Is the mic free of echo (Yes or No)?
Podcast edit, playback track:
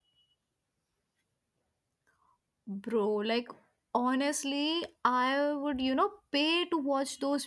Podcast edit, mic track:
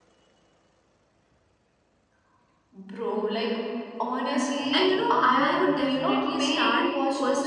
No